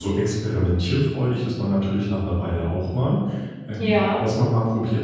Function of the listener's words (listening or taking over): listening